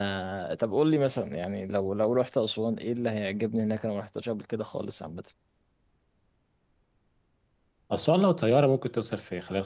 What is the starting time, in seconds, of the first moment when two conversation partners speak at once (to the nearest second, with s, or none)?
none